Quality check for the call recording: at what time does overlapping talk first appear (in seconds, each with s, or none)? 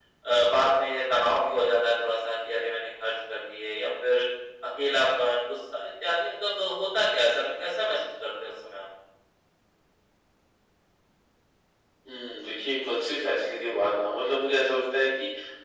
none